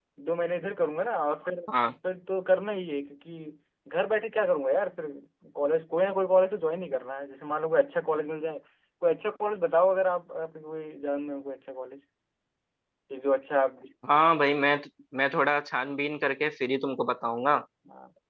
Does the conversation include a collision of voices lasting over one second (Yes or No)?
No